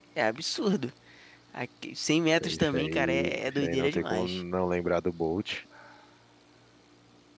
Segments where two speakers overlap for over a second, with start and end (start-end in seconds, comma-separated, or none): 2.6-4.4